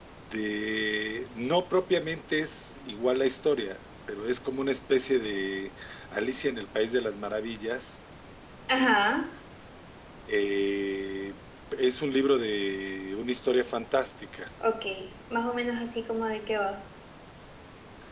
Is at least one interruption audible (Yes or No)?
No